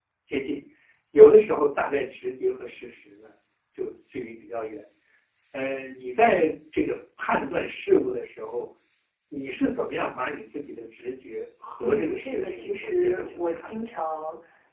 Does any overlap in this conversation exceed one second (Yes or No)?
Yes